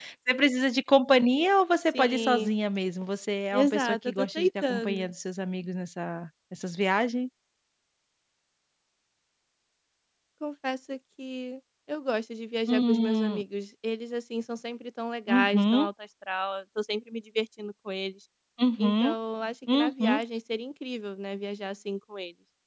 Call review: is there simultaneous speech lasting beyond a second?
Yes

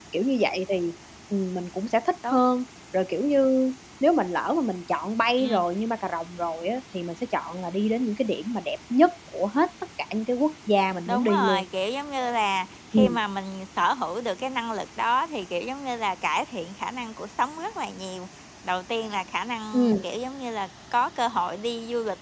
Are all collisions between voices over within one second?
Yes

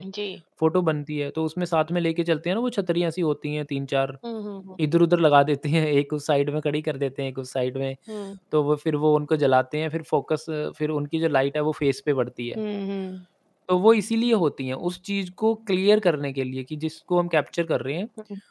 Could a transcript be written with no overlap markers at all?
Yes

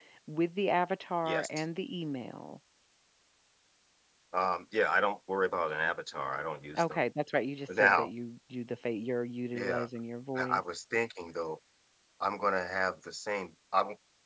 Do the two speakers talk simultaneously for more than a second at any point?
No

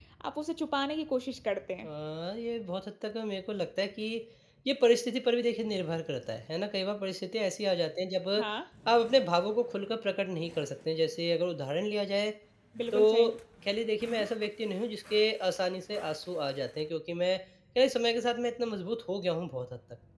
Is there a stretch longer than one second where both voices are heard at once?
No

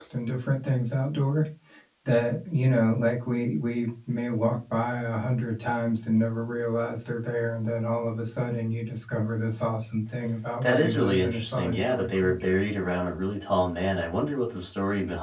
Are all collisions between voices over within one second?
No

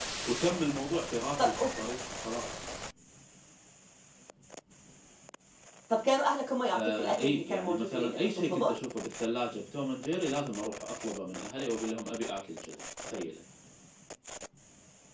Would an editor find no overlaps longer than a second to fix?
No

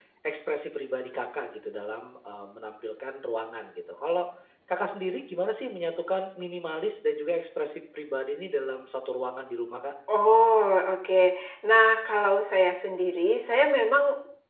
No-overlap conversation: Yes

